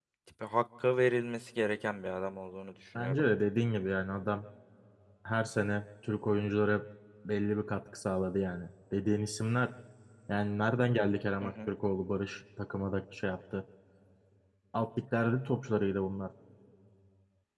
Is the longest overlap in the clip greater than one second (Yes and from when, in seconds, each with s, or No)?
No